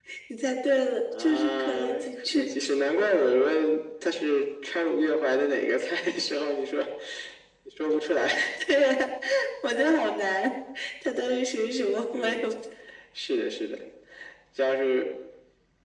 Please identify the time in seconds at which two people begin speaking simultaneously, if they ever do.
1.2 s

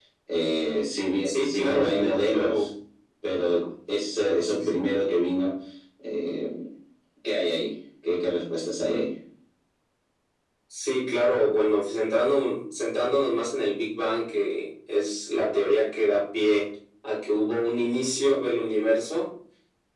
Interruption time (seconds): 1.2 s

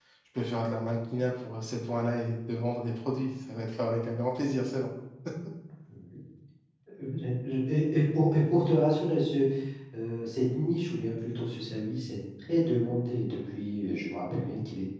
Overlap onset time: none

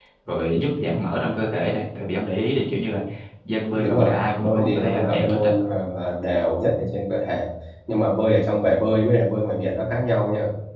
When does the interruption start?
3.7 s

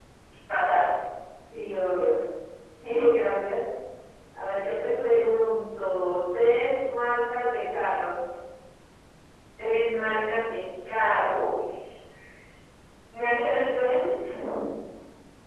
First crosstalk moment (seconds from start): none

